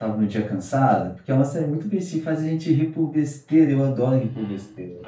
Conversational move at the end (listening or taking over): taking over